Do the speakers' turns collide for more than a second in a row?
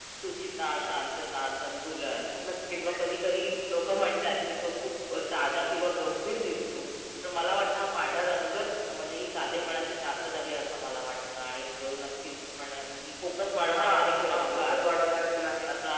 Yes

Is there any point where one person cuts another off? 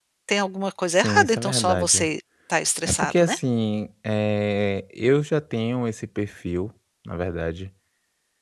Yes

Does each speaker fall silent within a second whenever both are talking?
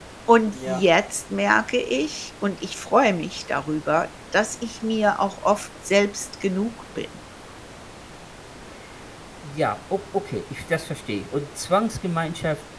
Yes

